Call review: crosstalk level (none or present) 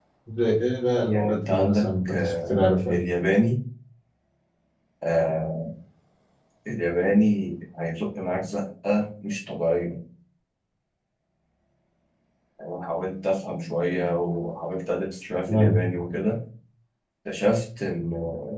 present